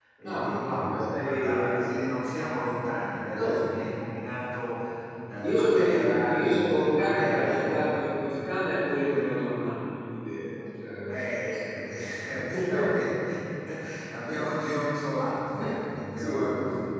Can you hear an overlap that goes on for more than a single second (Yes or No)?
Yes